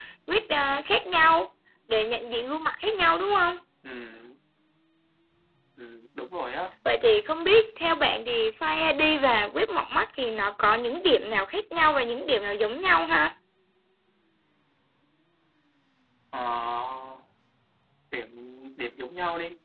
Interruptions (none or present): none